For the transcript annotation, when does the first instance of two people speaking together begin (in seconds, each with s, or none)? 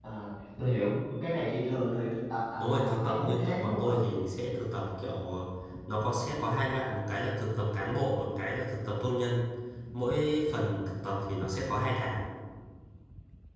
2.6 s